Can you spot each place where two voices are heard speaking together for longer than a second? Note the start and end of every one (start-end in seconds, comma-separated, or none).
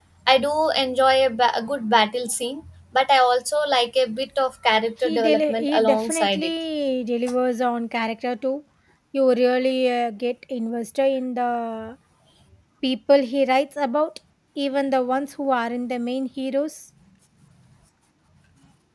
5.0-6.5